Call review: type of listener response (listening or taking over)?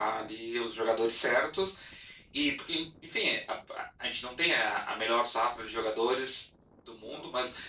listening